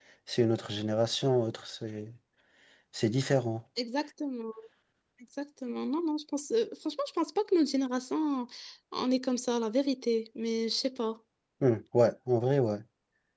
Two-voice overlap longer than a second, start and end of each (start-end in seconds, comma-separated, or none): none